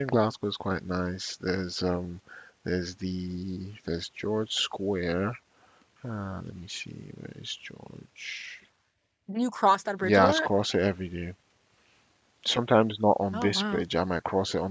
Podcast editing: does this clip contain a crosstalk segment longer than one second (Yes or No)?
No